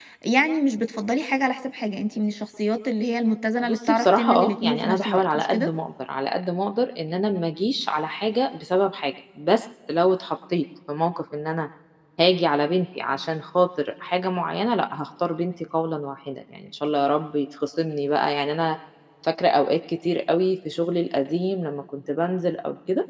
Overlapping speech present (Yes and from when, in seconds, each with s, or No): Yes, from 3.6 s